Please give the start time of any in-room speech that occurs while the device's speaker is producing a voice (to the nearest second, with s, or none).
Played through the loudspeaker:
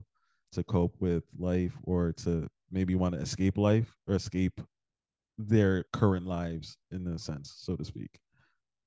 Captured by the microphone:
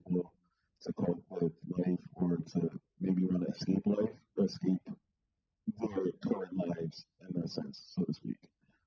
none